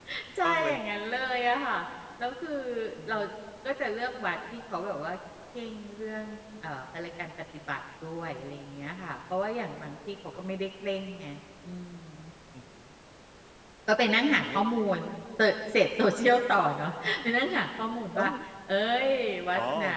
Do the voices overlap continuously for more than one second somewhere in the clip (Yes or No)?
No